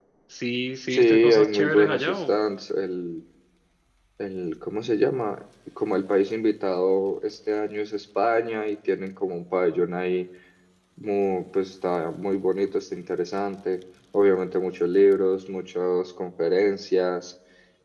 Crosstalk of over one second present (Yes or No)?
Yes